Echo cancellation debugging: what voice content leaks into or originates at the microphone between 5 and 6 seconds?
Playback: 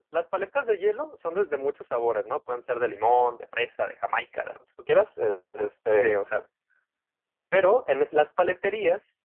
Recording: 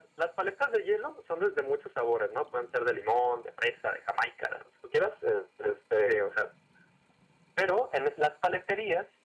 echo only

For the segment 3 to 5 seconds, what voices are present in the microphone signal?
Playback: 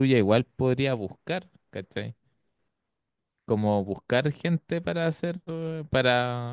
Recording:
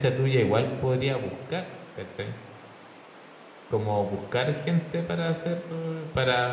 echo only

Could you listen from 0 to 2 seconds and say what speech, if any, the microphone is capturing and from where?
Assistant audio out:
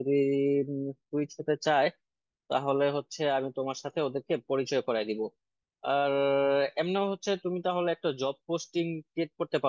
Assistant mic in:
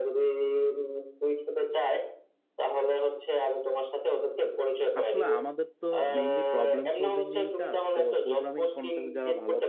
echo only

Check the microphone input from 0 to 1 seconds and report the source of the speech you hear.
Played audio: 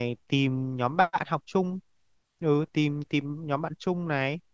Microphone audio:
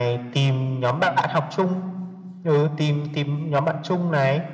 echo only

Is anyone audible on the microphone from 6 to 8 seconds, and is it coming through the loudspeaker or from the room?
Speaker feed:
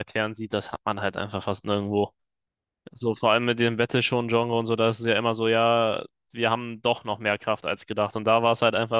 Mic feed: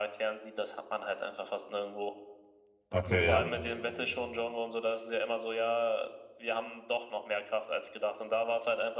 echo only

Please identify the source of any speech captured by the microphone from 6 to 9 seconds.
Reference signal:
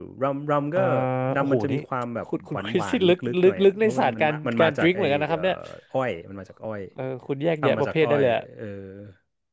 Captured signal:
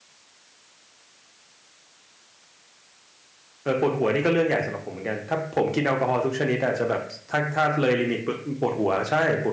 user only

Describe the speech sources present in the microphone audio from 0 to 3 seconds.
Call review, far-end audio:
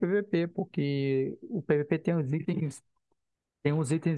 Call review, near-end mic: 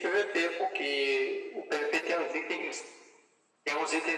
echo only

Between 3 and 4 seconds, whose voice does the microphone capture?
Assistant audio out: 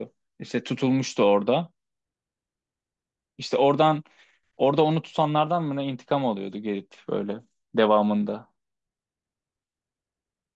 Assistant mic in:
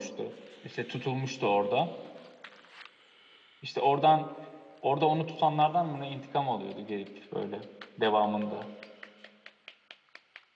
echo only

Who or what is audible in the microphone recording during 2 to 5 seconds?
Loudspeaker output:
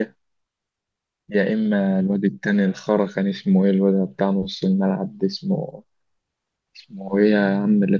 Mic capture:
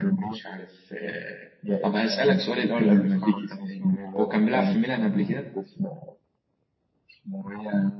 both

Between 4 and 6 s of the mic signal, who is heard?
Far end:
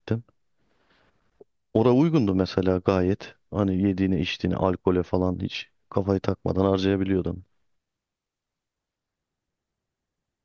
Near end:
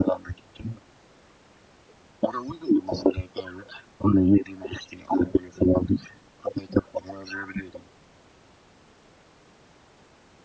echo only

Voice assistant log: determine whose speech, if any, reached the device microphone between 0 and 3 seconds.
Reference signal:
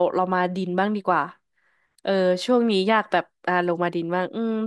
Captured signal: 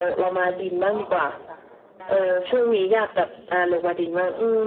both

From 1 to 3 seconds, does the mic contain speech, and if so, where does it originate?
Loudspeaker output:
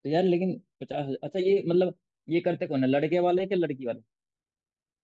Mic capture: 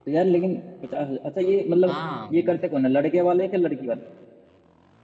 both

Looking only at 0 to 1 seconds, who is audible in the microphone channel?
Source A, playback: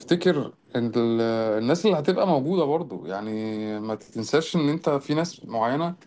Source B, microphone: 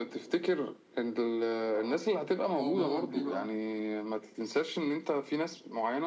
echo only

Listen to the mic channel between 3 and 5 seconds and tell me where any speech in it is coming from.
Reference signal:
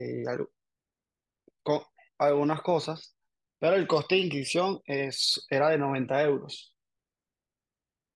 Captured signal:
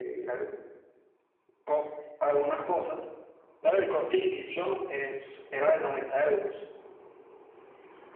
echo only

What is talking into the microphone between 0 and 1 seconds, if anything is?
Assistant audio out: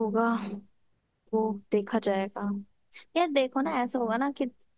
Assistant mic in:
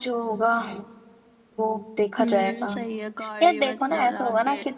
echo only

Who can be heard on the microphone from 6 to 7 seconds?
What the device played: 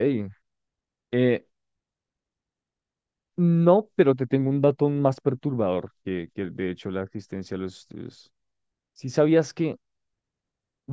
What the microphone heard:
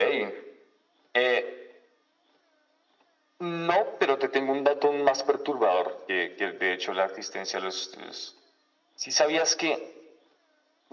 echo only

